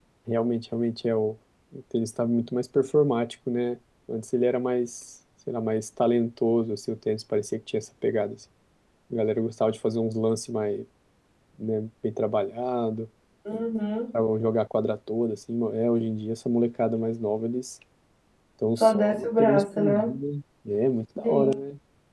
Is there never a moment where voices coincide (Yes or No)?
No